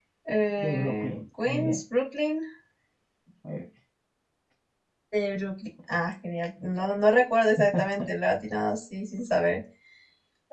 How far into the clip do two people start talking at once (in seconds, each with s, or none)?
0.6 s